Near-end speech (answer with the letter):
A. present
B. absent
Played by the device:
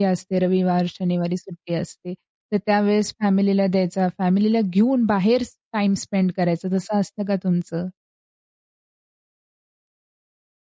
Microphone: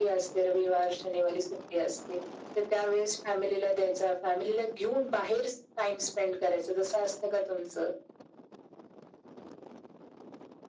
B